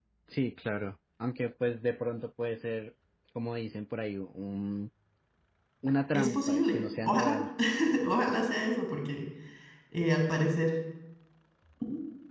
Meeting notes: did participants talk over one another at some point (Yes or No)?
Yes